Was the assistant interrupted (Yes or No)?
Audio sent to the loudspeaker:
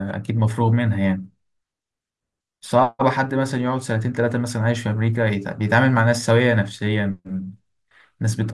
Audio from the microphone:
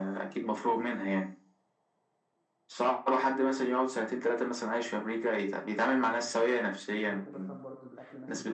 Yes